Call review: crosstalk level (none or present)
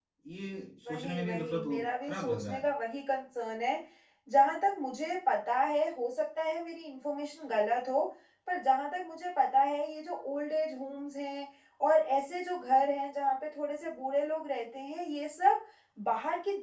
present